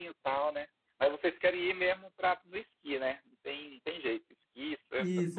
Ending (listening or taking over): taking over